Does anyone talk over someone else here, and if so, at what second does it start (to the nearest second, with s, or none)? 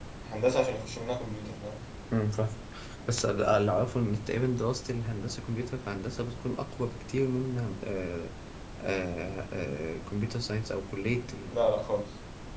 none